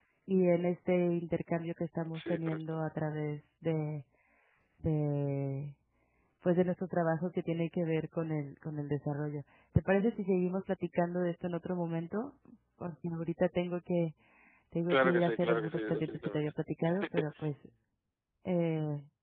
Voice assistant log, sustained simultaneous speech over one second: present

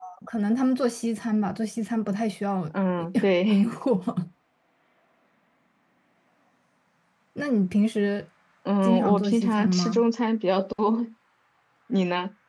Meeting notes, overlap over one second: present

